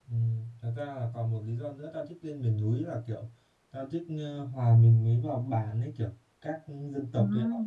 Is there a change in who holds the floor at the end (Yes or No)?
No